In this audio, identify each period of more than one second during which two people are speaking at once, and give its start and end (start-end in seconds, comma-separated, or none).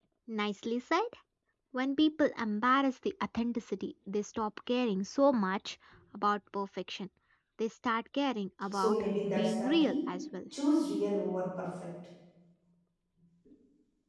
8.7-10.0